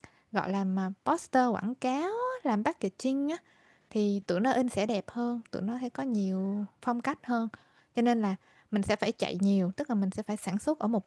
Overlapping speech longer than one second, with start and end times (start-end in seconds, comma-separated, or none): none